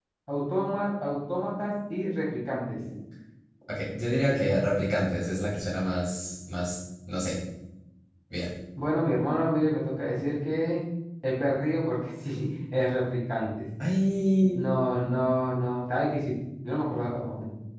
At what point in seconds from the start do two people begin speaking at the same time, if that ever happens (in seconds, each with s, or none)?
none